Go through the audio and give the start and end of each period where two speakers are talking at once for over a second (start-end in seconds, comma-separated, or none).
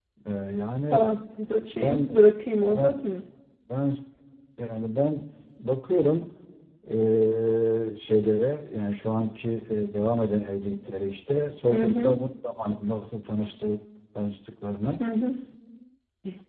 none